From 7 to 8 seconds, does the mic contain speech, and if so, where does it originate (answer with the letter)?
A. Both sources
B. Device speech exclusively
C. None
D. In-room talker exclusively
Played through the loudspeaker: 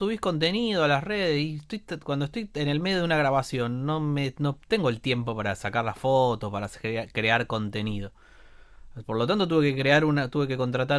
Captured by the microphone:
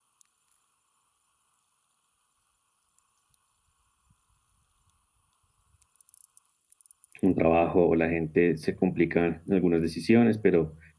D